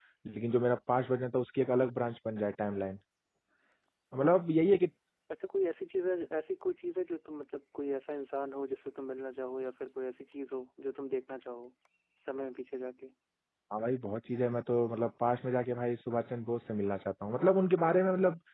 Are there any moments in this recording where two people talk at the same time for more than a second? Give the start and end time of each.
none

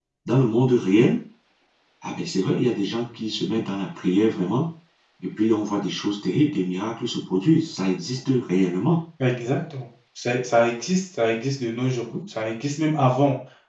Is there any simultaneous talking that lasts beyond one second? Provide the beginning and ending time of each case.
none

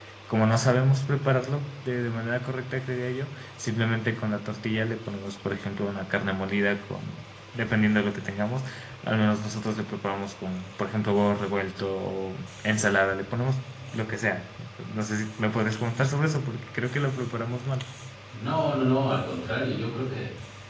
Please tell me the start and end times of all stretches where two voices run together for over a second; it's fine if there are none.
none

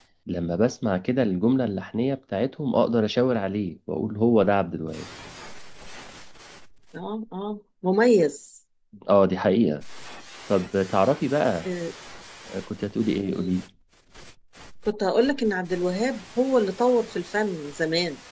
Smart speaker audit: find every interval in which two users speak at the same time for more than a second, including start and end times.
none

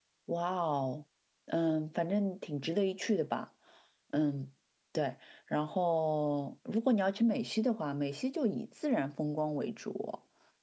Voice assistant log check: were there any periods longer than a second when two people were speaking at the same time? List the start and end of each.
none

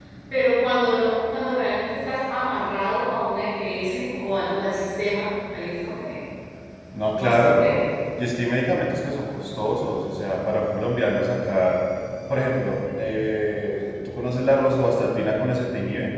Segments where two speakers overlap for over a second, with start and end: none

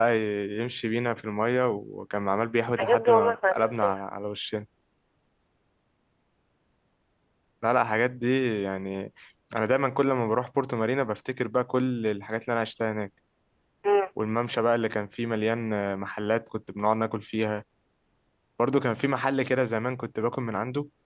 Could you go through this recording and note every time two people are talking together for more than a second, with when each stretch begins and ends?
2.8-4.1

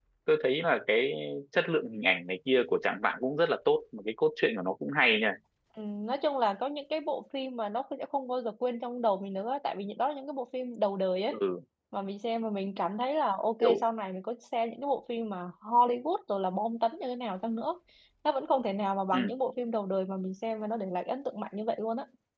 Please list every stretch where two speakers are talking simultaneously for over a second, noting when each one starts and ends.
none

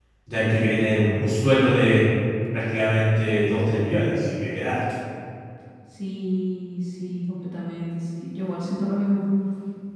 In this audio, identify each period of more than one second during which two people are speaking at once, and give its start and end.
none

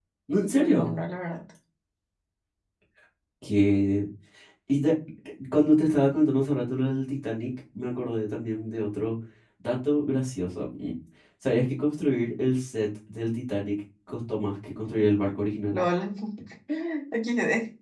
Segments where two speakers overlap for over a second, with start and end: none

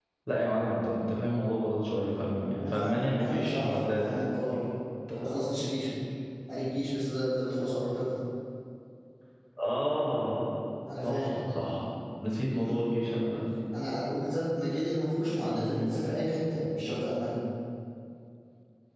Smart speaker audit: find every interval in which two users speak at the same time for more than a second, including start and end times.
2.7-4.0

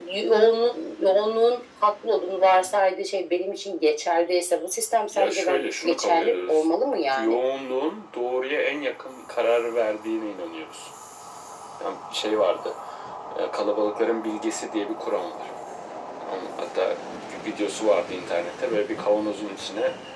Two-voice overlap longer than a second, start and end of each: 5.1-6.7

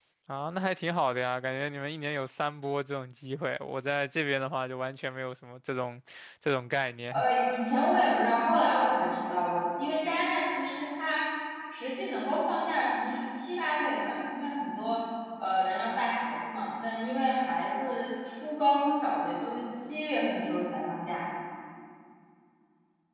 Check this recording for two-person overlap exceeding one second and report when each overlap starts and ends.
none

